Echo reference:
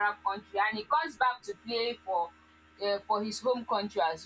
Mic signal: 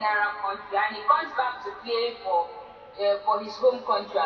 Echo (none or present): present